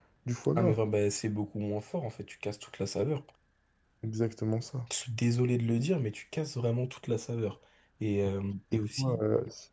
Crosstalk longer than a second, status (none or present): none